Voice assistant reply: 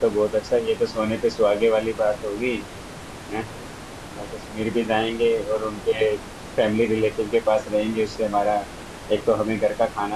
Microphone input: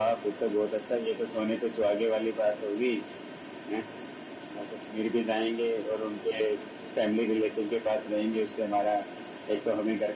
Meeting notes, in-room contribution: none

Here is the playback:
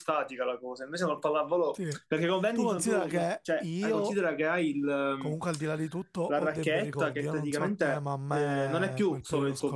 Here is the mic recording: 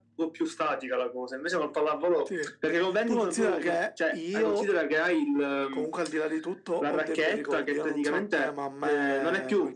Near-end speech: none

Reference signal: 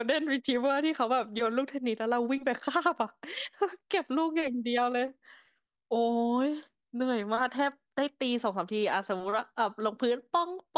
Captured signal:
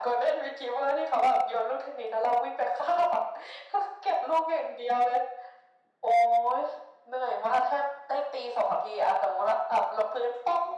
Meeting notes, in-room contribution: none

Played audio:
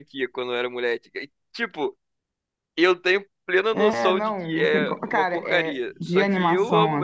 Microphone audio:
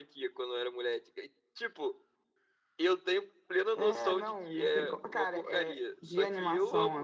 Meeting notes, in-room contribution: none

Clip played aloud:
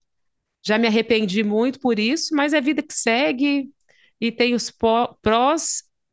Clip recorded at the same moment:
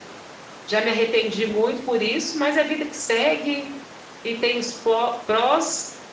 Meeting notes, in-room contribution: none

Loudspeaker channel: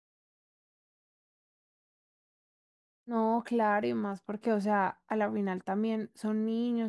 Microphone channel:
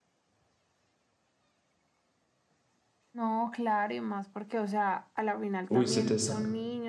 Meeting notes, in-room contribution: present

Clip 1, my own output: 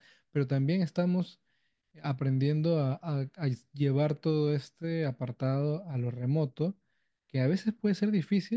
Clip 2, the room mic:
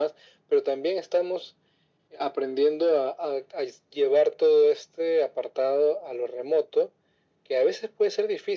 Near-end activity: none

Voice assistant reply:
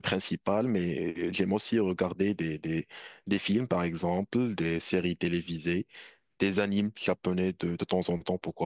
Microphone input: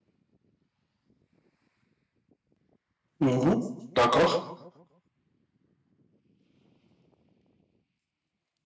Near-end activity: present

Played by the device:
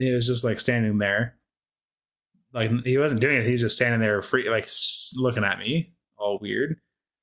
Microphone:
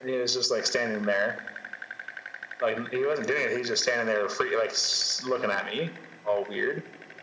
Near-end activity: none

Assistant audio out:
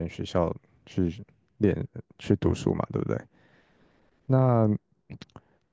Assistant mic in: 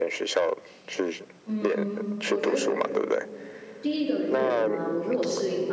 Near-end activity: present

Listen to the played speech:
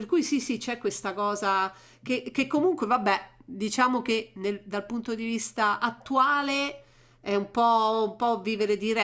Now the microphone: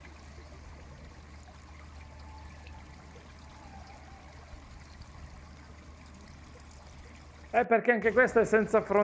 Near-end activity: present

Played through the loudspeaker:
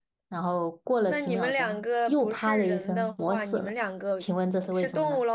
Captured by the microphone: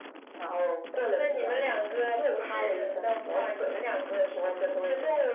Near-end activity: none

